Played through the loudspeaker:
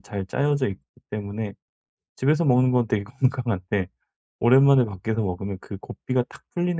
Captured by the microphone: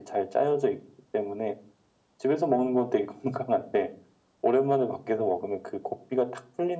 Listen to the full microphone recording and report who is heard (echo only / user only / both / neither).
echo only